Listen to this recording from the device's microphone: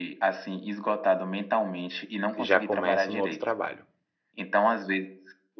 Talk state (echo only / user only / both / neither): both